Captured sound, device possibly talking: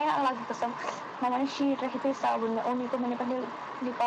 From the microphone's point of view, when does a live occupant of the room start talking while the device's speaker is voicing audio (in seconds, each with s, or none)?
none